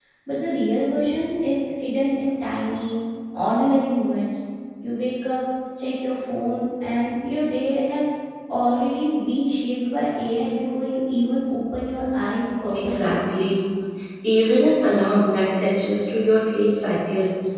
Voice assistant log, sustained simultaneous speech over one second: none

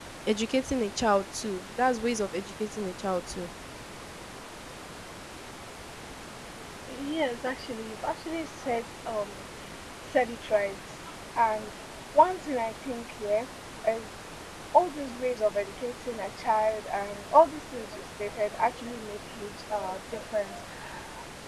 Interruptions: none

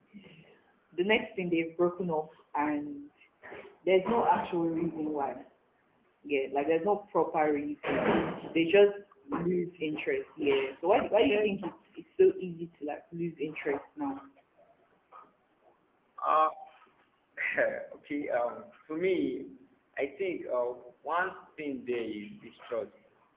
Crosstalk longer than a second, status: none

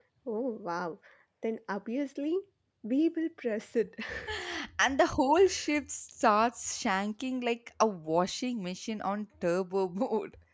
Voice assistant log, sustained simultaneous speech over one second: none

